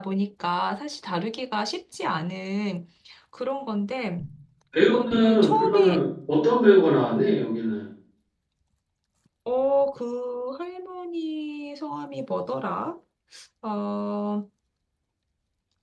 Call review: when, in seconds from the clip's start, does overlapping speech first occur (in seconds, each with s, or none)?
4.8 s